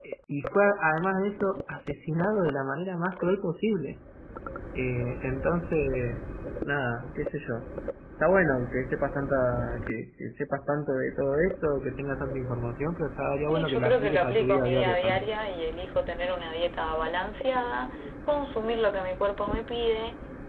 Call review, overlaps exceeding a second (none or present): present